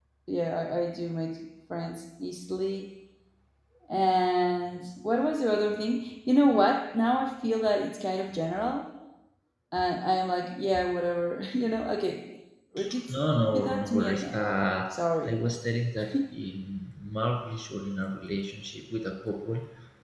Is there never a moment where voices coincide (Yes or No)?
No